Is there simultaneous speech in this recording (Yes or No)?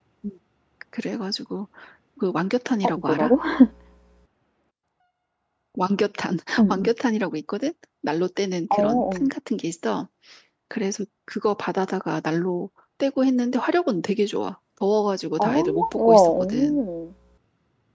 Yes